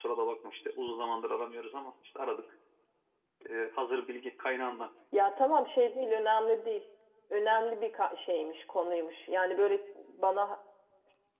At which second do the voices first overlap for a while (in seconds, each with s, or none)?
none